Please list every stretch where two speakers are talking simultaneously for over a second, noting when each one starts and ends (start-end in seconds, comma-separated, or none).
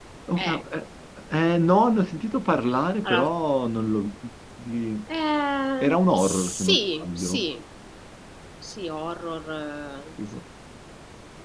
5.8-7.4